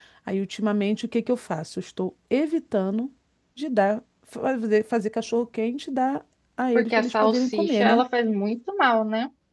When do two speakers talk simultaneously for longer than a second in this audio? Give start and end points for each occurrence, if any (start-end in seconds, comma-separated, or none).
6.8-8.0